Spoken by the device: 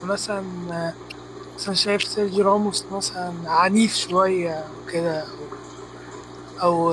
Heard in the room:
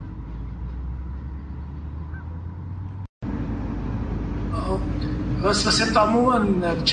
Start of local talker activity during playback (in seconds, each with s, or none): 4.5 s